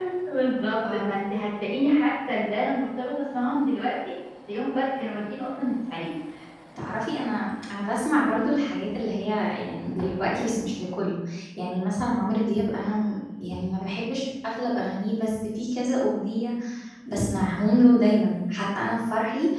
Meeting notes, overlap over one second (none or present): none